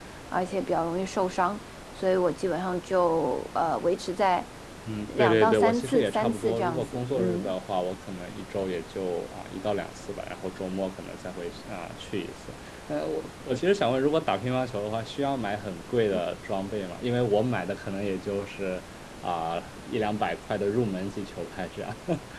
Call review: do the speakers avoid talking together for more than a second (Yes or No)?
No